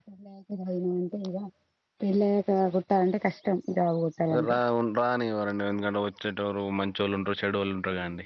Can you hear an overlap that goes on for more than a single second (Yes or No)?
No